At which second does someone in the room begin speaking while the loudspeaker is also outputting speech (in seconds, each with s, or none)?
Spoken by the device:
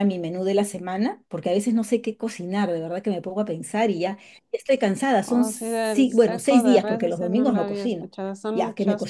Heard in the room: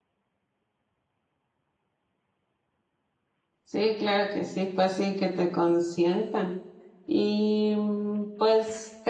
3.6 s